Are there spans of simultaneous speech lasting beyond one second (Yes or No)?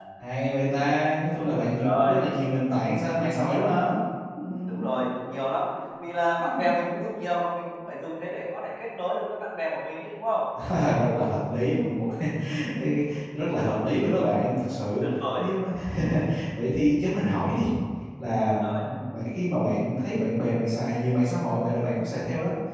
No